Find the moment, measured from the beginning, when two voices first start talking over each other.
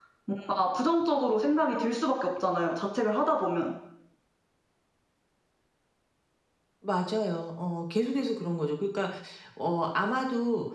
none

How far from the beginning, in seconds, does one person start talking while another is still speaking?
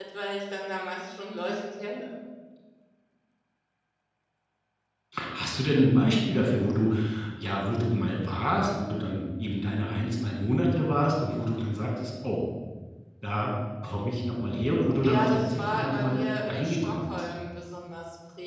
15.0 s

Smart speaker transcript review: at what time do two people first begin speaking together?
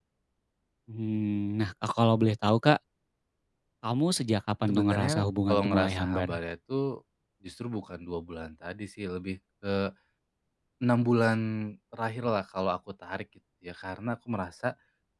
4.7 s

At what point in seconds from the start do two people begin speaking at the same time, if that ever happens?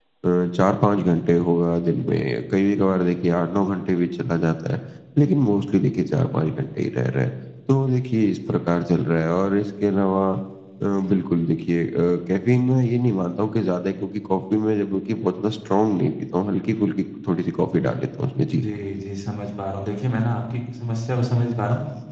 none

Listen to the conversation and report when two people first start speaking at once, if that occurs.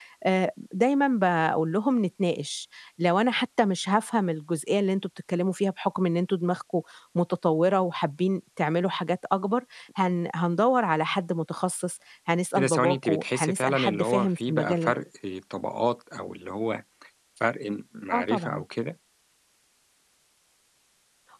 12.6 s

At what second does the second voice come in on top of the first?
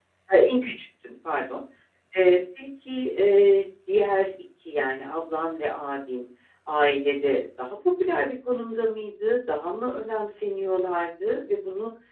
none

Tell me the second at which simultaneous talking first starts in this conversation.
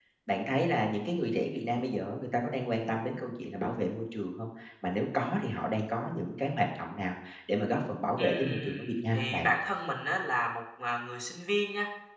8.2 s

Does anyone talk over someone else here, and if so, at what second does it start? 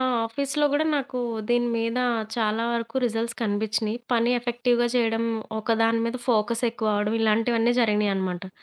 none

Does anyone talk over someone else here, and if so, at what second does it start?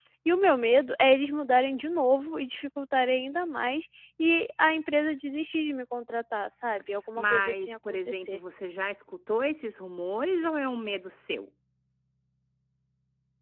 7.2 s

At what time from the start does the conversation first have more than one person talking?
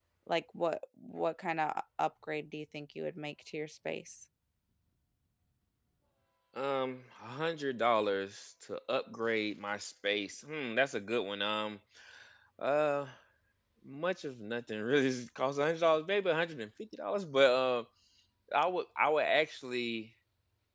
none

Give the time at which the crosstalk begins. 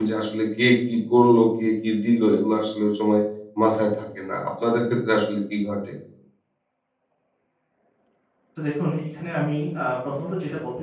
none

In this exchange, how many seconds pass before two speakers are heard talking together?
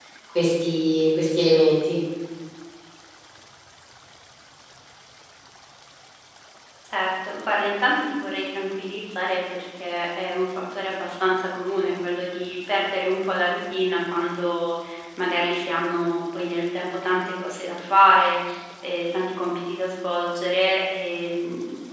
none

